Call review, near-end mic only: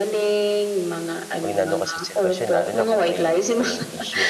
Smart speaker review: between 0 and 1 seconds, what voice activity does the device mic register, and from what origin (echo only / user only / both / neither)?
echo only